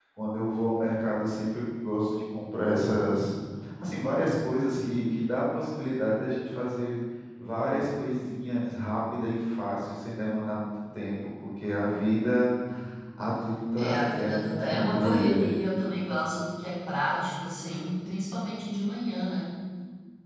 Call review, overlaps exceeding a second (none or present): present